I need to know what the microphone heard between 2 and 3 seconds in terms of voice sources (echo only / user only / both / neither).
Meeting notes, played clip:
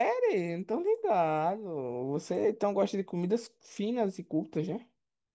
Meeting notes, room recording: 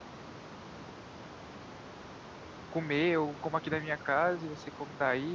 user only